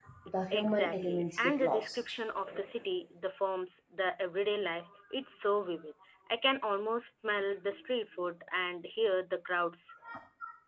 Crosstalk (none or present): present